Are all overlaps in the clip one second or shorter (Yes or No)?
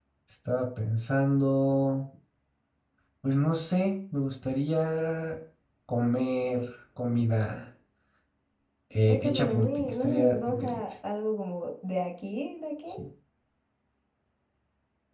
No